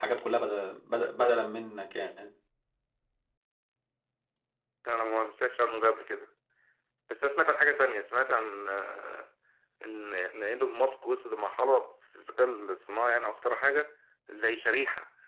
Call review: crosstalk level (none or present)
none